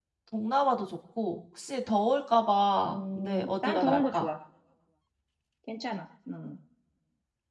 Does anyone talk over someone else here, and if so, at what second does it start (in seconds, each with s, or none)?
2.9 s